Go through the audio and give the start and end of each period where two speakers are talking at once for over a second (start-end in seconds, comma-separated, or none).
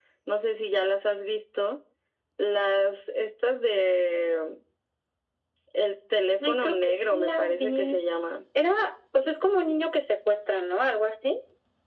6.4-8.0